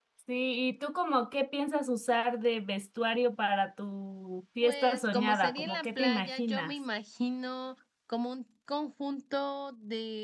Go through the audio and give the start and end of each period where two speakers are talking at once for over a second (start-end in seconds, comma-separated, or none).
4.6-6.7